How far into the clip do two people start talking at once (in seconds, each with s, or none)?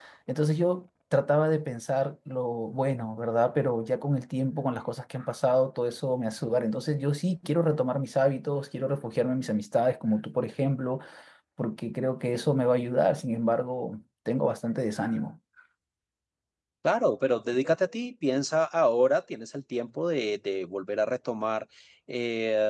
none